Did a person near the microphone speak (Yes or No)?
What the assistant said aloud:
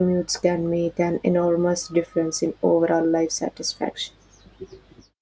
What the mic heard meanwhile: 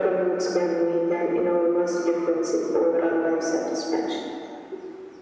No